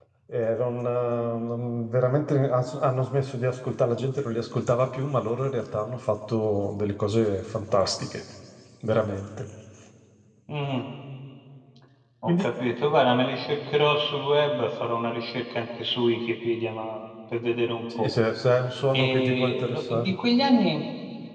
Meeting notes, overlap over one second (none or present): present